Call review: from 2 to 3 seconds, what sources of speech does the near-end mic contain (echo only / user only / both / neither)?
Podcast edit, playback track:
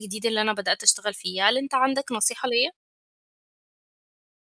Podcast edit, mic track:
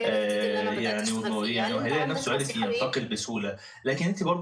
both